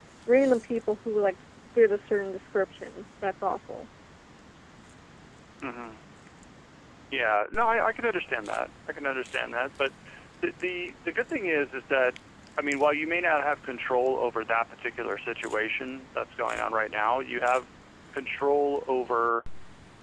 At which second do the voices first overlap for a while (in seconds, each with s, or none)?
none